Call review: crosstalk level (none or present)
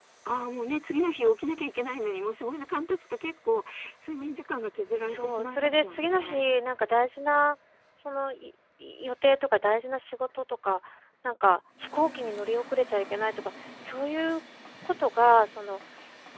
present